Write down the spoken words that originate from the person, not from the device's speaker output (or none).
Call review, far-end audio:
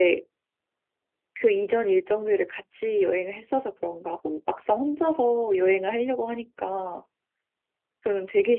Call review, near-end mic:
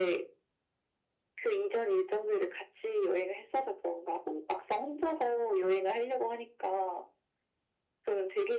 none